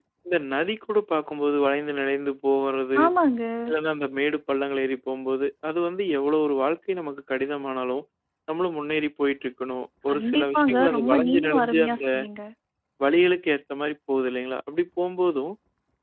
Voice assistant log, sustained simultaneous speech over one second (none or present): present